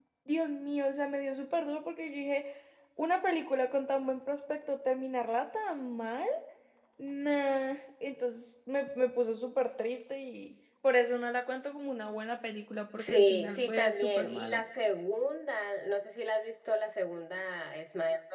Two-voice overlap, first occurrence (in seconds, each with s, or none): 13.0 s